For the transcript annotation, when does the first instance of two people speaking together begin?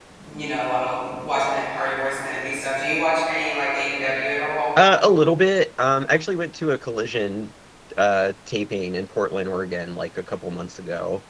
none

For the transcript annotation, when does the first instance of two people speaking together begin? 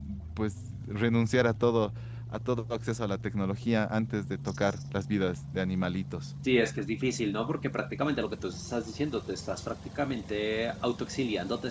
none

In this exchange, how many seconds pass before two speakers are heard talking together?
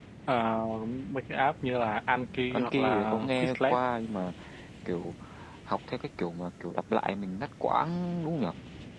3 s

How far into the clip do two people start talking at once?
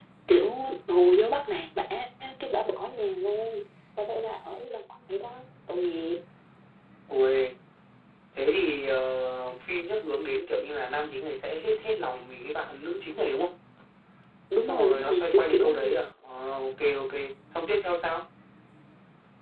15 s

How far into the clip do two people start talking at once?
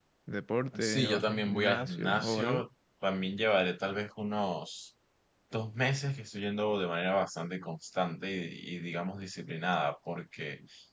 1 s

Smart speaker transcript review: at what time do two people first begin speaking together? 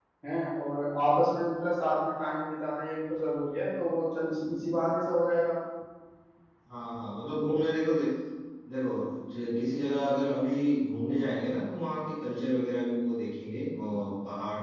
none

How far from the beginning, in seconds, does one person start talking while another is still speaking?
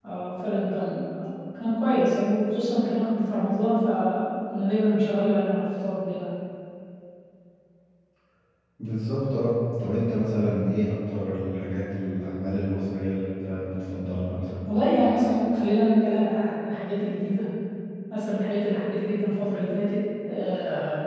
none

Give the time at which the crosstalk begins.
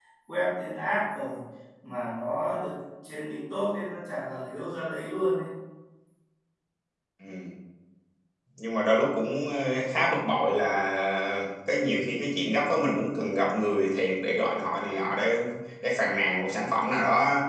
none

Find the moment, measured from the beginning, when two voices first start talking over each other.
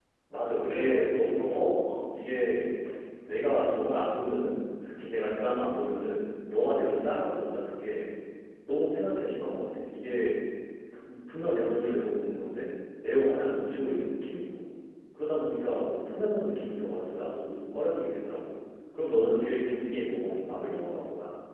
1 s

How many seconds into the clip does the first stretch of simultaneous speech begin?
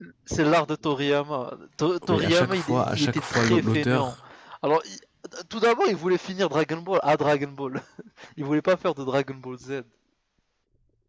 2 s

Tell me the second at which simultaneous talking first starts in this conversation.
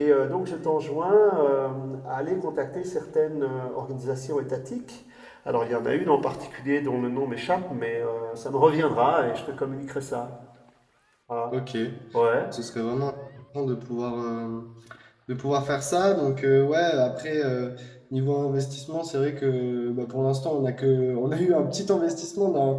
none

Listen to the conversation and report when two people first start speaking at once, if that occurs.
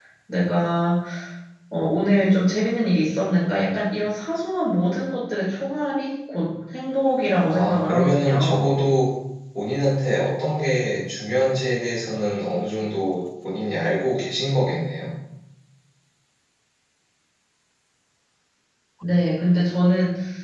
8 s

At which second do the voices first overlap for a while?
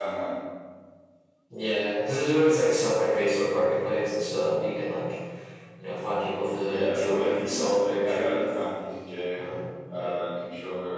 7 s

